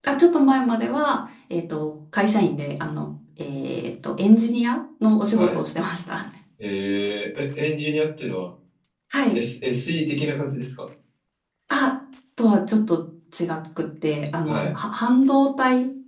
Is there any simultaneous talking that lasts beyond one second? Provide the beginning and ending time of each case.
none

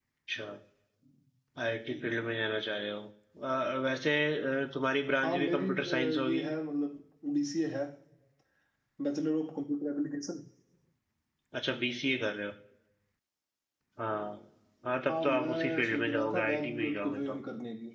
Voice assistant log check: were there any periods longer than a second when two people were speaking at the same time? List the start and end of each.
5.2-6.4, 15.1-17.4

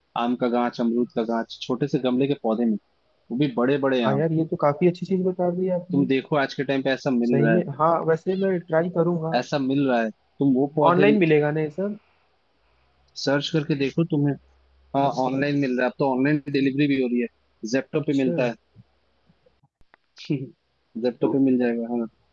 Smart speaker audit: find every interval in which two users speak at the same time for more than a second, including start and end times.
none

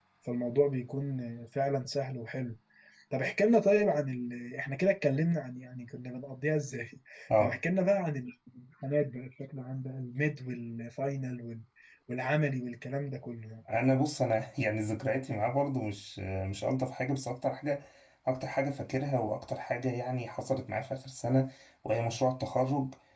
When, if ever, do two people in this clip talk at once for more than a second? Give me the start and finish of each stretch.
none

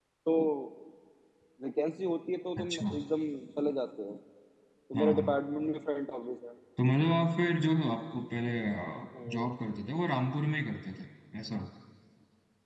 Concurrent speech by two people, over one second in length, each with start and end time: none

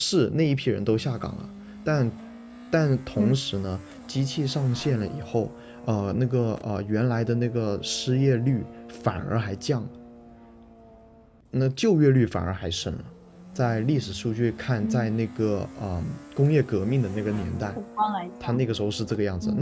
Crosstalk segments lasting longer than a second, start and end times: none

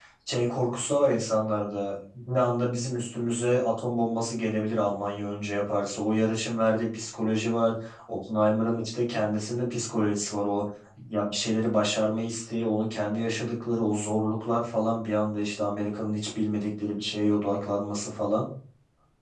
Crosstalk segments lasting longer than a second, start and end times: none

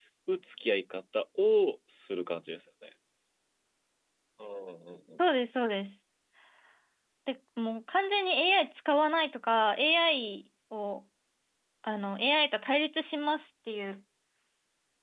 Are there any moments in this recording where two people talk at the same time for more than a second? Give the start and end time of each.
none

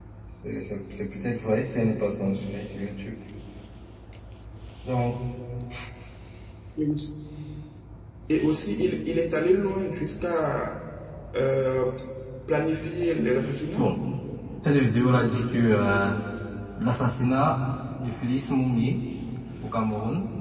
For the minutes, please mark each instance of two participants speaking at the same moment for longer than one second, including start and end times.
none

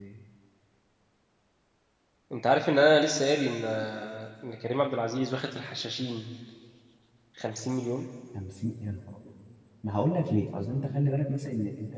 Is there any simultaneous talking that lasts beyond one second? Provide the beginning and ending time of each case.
none

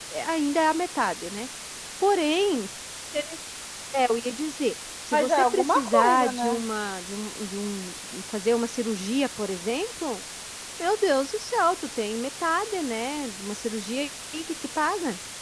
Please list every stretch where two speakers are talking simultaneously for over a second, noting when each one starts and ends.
5.1-6.6

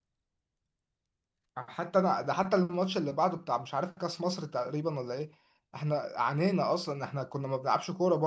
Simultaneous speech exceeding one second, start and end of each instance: none

